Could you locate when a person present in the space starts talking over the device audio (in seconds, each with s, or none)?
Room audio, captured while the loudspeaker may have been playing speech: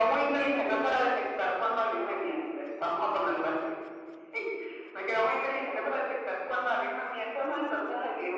none